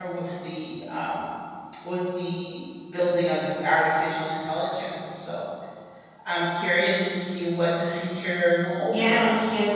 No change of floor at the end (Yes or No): No